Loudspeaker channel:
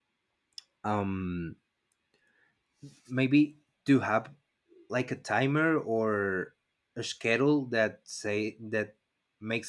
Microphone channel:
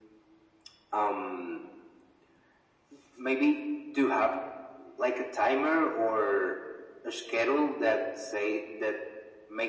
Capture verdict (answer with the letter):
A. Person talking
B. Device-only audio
B